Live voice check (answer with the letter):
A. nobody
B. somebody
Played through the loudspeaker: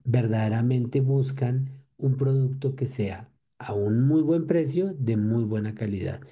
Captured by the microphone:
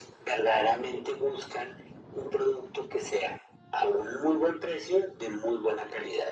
A